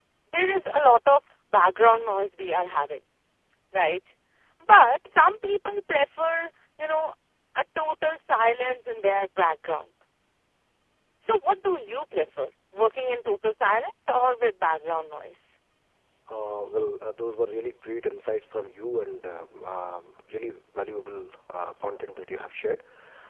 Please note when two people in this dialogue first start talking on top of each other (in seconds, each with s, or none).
none